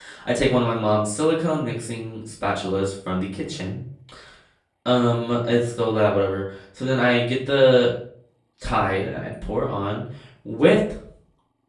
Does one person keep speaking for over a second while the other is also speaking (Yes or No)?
No